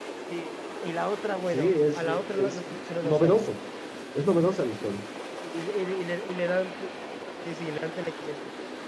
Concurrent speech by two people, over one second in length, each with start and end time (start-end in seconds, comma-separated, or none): 1.5-3.6